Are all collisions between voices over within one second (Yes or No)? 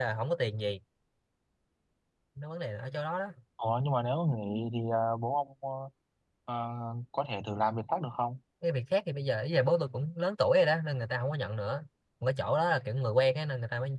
Yes